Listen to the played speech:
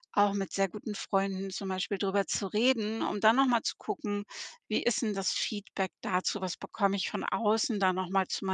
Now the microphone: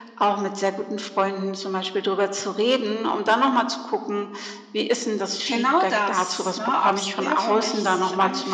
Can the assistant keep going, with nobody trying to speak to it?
No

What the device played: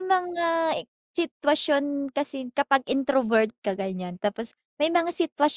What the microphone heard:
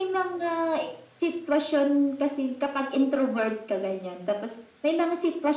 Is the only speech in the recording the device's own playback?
Yes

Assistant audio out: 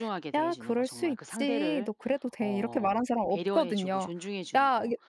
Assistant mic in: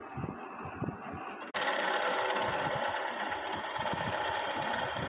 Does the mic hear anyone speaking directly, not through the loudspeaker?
No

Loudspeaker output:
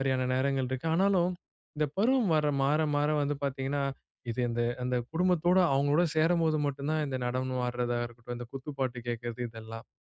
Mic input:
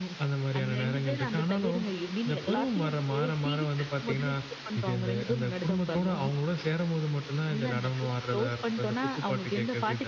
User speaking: Yes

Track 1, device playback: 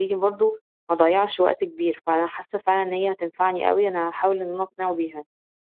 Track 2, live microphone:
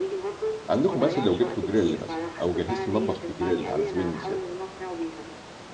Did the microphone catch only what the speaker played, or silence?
No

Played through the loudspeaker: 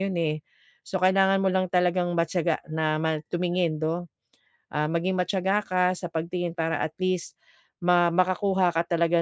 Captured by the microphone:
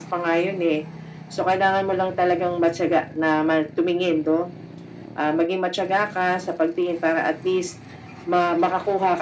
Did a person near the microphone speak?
No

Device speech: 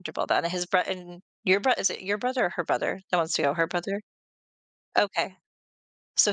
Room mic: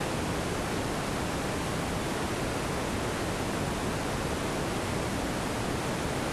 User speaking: No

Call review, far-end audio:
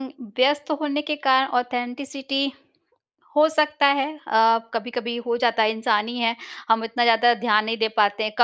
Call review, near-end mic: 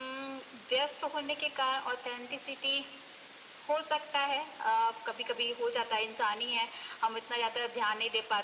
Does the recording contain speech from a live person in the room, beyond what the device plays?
No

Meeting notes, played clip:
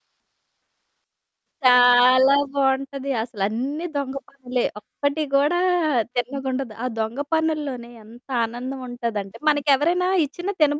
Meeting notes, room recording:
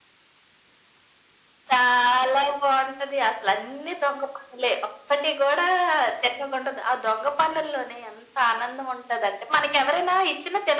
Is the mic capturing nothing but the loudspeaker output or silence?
Yes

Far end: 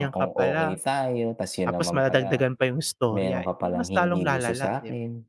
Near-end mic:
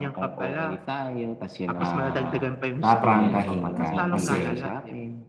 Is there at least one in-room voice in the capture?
Yes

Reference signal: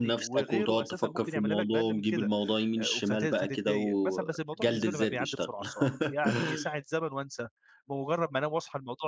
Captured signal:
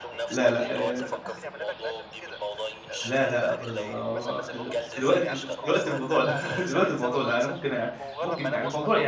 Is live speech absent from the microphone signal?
No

